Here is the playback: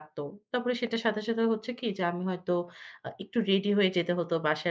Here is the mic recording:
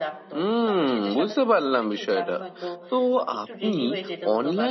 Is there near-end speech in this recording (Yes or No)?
Yes